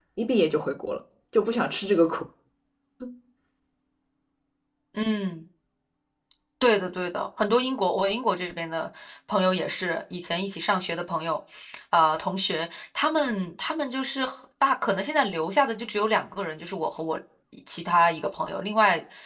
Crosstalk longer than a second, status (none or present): none